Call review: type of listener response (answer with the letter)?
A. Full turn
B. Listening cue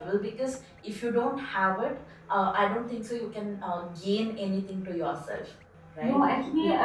A